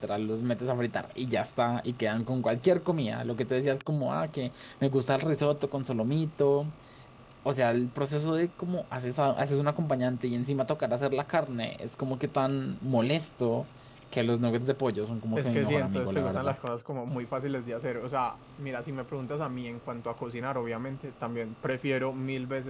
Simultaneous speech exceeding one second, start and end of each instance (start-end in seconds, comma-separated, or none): 15.3-16.5